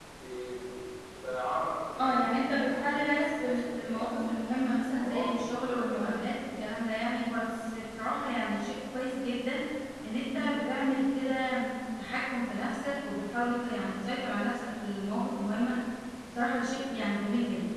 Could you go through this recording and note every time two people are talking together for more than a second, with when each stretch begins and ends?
2.0-4.3, 4.9-6.1

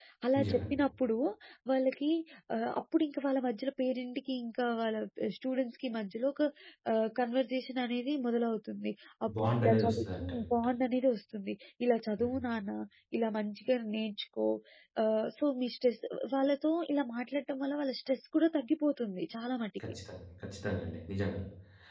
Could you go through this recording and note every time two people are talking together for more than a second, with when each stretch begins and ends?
9.4-10.7

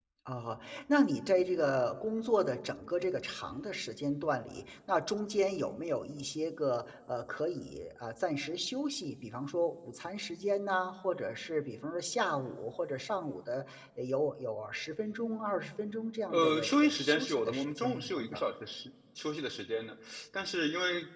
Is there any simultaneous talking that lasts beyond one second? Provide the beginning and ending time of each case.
16.3-18.4

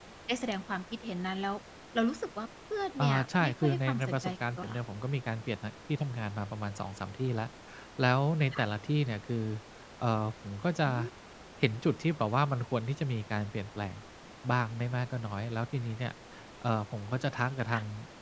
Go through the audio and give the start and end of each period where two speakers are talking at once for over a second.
3.0-4.8

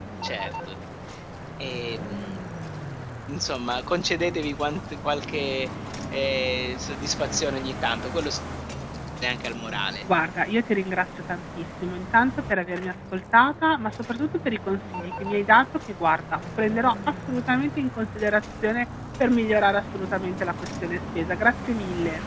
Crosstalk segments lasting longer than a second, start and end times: none

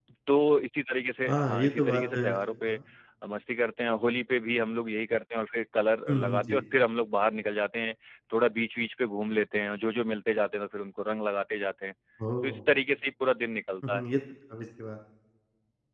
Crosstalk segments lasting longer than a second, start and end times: 1.3-2.8

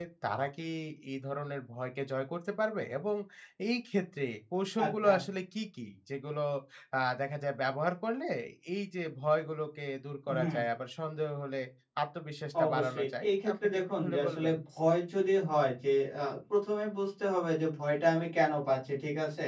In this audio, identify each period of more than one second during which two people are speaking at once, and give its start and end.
12.6-14.6

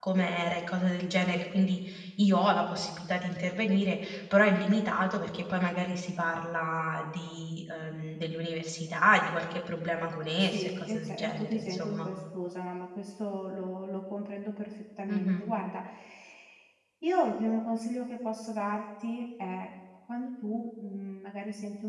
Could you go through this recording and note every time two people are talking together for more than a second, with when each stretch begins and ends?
10.4-12.1

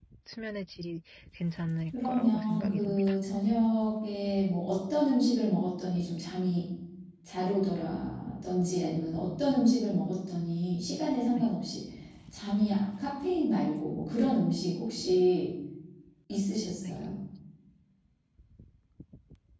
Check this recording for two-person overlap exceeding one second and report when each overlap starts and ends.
1.9-3.1

